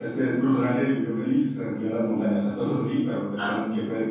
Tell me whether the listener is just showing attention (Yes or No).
Yes